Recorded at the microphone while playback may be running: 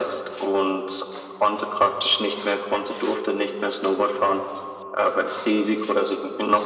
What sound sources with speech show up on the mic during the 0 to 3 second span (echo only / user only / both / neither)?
echo only